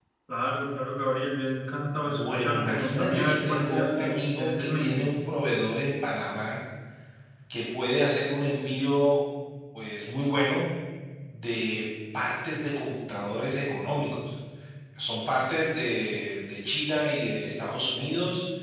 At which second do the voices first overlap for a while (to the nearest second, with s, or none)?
2 s